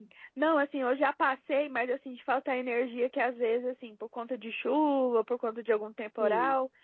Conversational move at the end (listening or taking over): listening